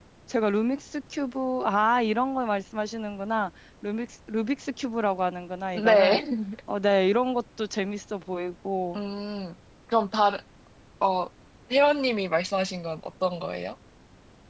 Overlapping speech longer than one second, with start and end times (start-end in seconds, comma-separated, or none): none